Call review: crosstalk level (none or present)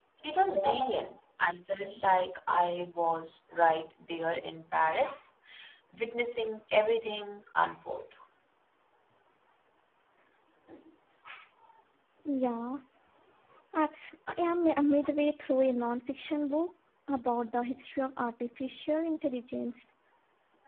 none